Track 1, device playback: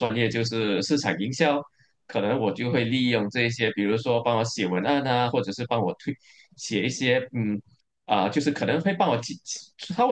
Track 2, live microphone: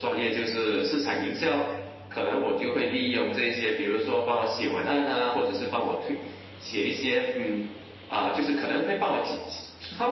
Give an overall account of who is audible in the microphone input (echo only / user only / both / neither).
echo only